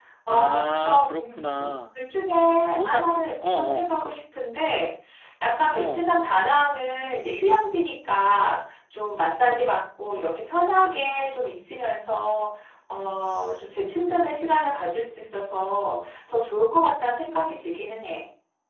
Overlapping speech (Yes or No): Yes